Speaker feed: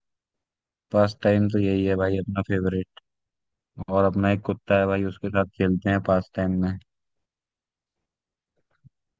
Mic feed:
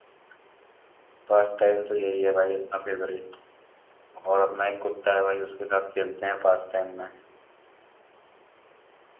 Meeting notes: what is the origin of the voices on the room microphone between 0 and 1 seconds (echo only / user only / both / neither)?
neither